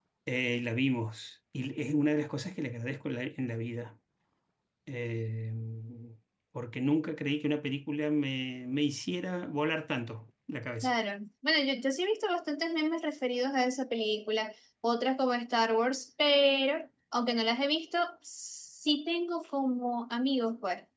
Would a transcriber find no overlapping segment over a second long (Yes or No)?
Yes